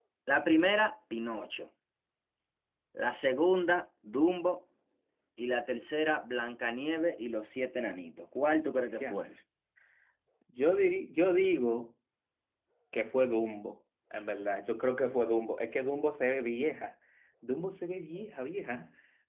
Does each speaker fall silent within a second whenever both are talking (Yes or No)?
Yes